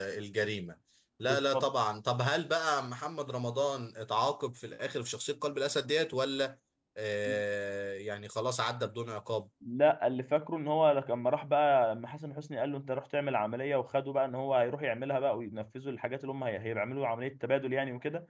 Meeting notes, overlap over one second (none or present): none